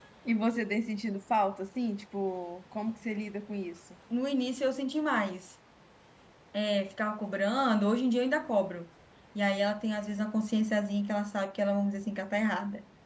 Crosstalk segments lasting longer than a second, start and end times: none

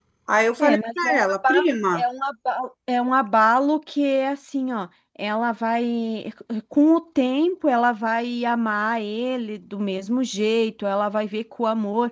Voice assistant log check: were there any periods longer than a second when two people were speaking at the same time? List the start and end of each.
0.6-2.0

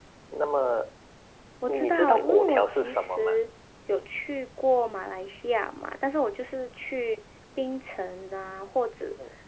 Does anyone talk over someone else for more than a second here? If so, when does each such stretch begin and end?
1.7-3.4

